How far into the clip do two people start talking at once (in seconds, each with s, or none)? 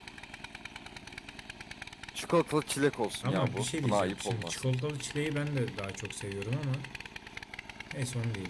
3.2 s